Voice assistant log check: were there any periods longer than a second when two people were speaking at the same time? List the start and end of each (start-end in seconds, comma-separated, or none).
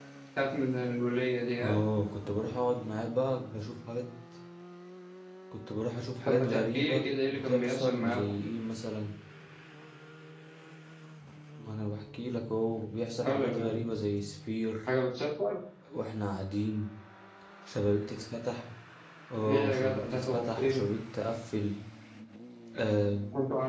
6.3-8.2, 19.4-20.9